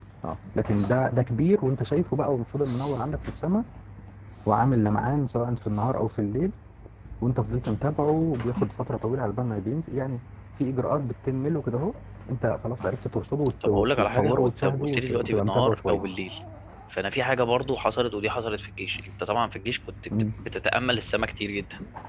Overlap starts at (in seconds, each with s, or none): 13.6 s